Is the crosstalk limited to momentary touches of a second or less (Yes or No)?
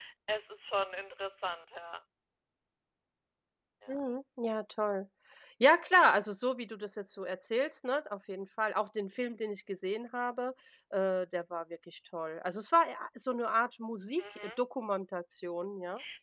Yes